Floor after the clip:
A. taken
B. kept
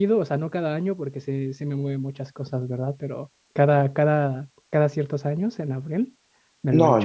A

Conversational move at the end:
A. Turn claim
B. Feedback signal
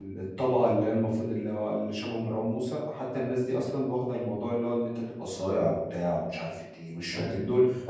A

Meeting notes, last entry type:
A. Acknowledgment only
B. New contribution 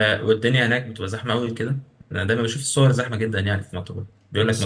A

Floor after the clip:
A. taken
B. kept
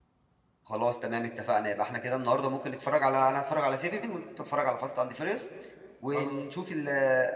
B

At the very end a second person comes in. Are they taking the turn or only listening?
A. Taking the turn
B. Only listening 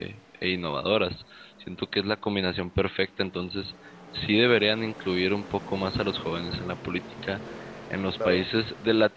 B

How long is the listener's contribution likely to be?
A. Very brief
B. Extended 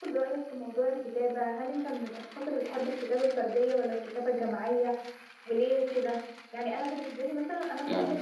A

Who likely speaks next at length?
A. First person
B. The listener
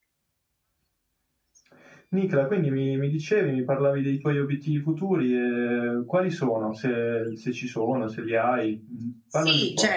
B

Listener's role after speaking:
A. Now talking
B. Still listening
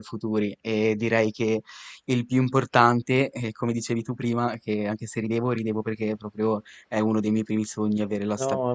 A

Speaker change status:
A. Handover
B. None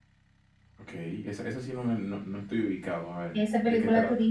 A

